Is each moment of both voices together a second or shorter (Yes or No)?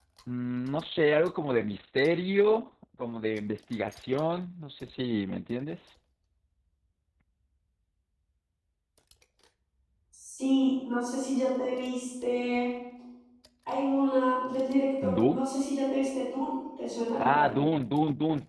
Yes